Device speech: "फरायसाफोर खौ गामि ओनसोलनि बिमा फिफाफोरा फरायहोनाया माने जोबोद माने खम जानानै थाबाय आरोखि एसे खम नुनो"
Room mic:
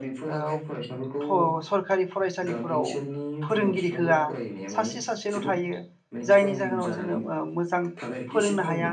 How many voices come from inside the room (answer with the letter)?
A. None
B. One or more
B